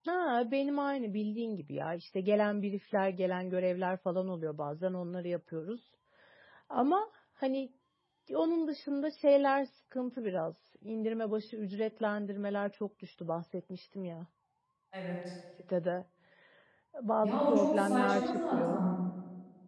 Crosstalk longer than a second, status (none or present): present